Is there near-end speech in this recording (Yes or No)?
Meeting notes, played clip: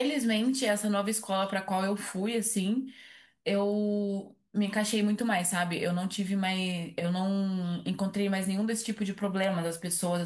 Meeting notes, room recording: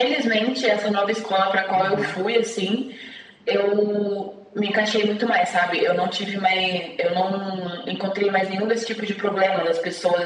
Yes